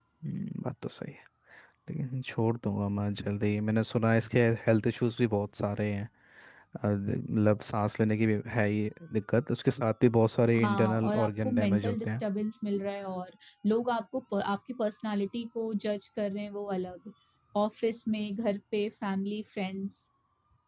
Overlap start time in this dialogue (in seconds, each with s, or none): 10.6 s